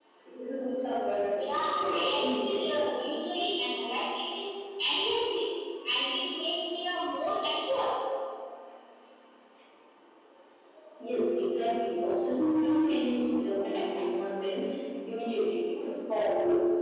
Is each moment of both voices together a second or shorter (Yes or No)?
No